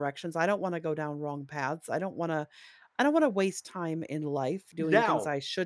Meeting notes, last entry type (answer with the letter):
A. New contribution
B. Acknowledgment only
B